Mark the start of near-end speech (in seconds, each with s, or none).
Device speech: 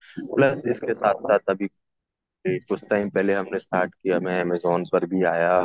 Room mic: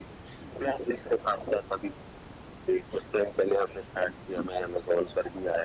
none